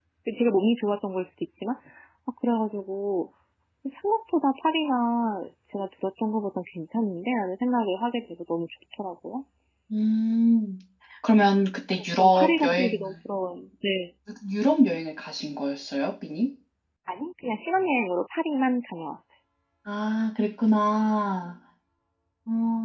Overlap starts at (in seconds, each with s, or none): 11.9 s